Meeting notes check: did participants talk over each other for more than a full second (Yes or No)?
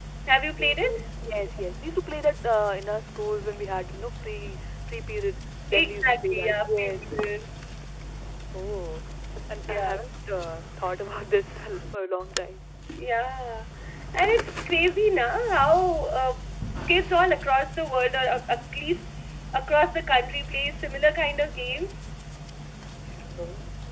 Yes